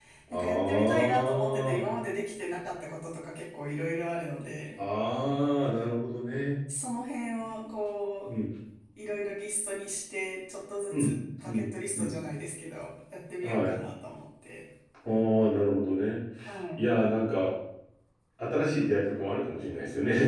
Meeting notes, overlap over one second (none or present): present